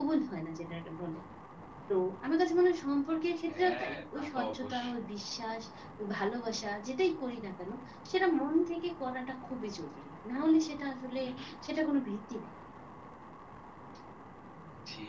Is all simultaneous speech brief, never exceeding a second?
No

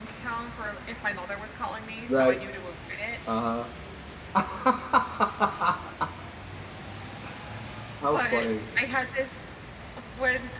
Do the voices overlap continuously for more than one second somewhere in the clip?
No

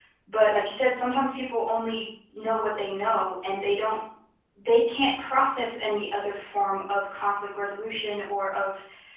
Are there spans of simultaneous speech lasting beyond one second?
No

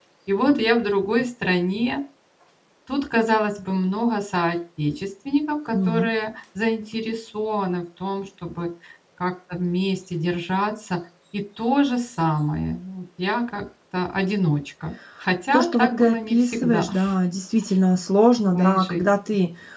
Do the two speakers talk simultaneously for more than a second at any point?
Yes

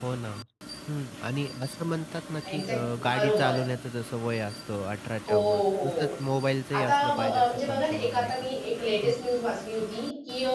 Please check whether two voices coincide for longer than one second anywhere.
Yes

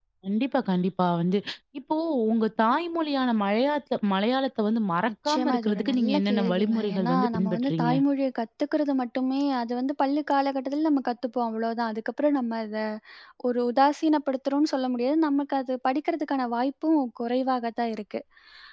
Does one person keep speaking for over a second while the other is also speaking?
Yes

